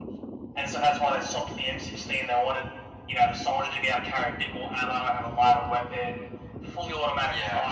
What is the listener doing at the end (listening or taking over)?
listening